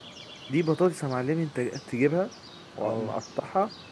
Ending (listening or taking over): listening